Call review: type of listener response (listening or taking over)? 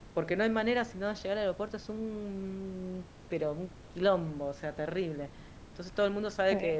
listening